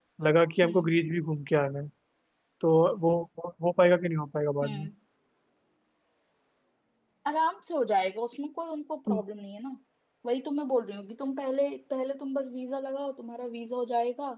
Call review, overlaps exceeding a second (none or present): none